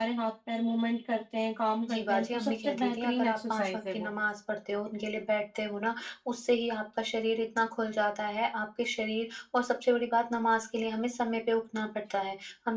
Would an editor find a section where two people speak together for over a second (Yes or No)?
Yes